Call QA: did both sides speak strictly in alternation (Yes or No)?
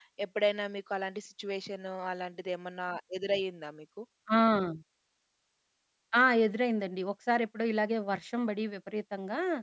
Yes